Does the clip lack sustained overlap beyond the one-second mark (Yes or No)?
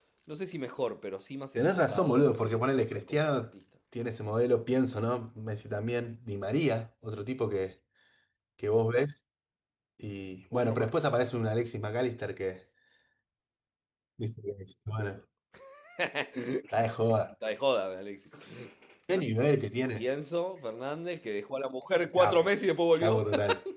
No